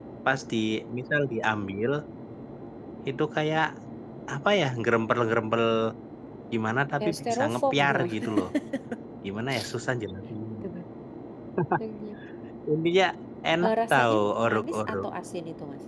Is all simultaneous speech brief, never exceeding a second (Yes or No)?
No